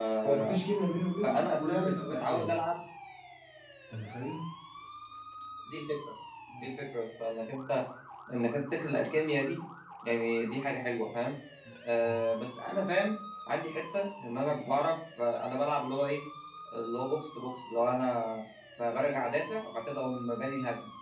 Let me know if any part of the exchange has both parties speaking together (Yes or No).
Yes